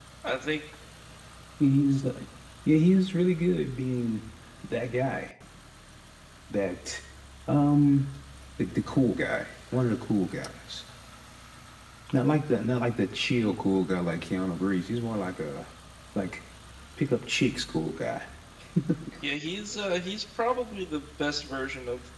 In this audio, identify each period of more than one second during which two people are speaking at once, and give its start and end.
none

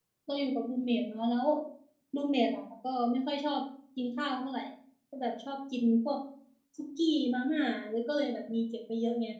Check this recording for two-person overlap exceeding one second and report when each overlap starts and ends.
none

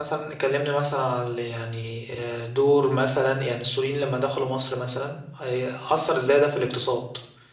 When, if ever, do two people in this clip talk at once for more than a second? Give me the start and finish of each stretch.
none

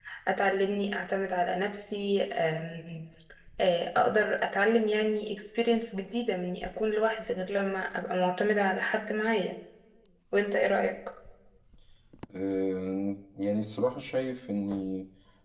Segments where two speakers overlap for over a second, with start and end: none

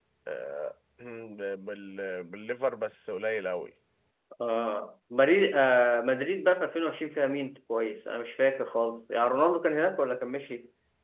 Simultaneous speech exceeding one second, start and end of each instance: none

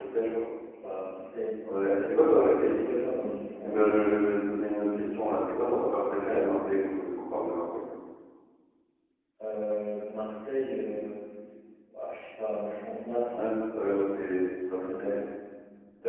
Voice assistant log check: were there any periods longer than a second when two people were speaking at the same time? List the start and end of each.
none

